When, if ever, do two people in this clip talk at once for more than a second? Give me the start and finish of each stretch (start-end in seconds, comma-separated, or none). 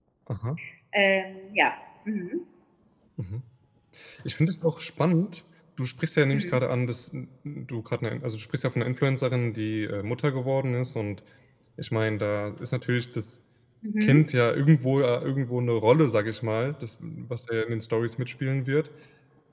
none